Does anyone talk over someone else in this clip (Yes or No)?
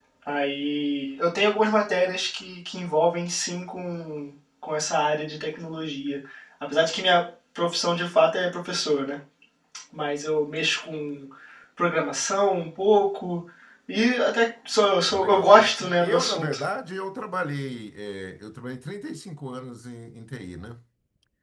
Yes